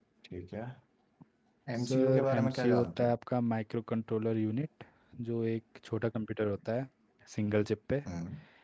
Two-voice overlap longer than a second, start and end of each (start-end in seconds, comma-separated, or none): 1.8-3.1